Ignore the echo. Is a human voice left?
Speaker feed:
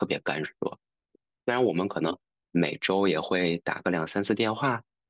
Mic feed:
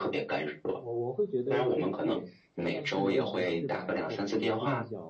Yes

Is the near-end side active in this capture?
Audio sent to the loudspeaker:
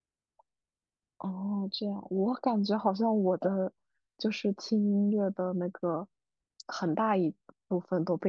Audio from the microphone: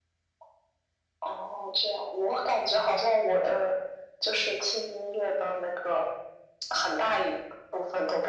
No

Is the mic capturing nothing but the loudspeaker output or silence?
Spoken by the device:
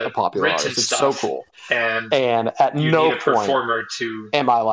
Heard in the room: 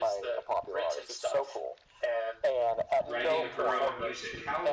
No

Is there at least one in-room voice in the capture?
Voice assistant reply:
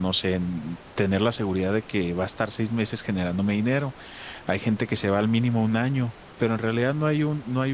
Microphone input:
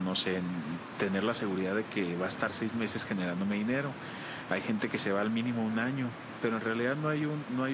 No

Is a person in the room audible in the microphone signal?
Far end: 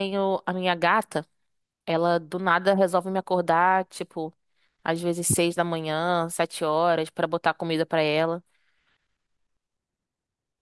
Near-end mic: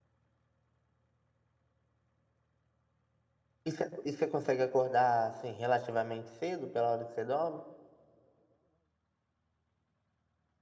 Yes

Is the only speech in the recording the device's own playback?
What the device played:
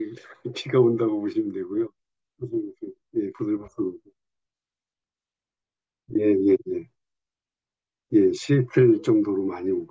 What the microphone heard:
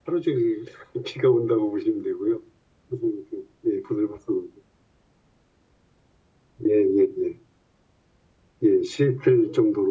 Yes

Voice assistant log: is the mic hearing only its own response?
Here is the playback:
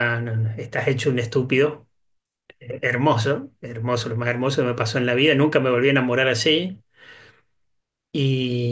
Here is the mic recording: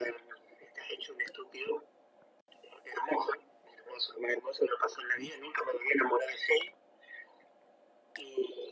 Yes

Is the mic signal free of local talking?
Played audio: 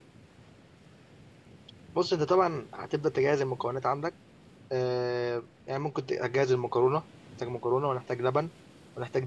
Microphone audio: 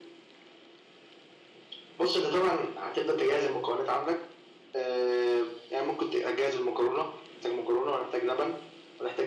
Yes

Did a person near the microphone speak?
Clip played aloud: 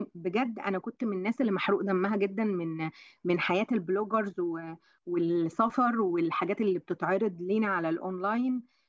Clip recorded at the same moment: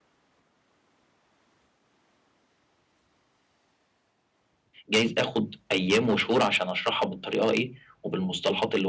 Yes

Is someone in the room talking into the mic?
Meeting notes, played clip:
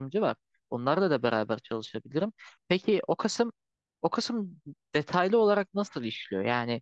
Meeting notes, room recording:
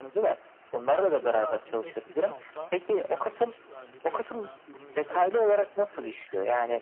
Yes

